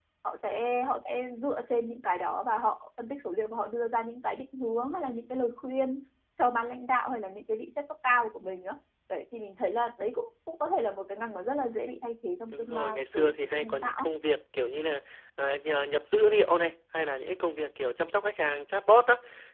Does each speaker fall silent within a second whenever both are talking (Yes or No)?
No